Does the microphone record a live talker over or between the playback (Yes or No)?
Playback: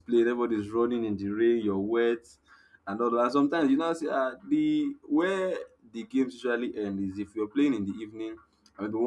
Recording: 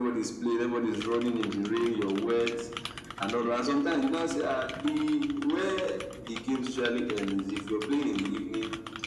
No